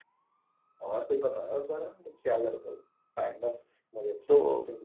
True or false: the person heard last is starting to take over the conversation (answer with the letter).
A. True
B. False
A